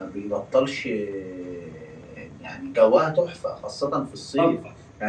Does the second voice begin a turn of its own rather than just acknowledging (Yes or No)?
No